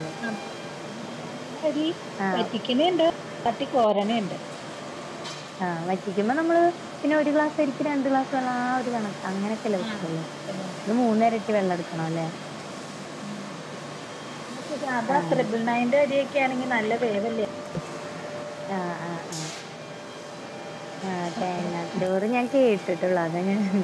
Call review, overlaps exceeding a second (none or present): none